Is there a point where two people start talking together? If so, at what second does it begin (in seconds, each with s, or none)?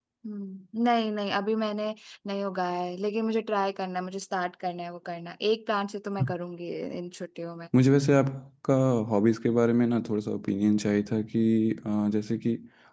none